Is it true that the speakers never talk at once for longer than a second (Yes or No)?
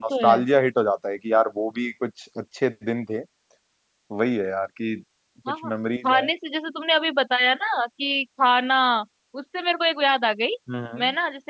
Yes